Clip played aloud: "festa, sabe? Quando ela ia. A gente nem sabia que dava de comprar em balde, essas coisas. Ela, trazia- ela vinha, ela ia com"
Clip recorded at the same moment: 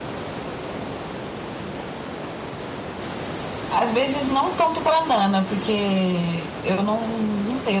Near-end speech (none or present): present